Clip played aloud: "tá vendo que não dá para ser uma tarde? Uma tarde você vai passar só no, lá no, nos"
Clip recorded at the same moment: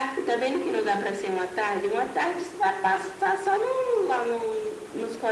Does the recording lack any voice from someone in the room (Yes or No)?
Yes